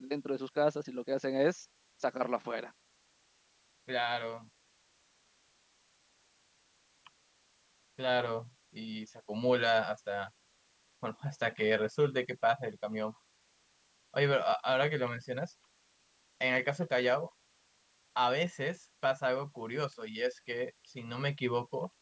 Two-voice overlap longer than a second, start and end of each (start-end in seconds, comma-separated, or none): none